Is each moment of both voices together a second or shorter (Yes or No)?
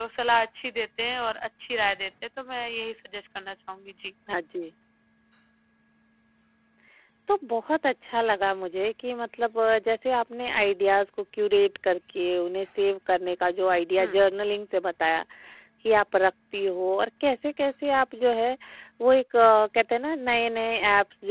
Yes